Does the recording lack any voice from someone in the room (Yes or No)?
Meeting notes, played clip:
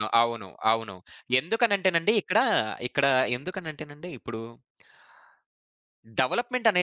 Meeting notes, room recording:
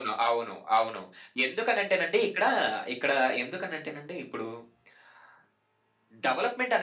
Yes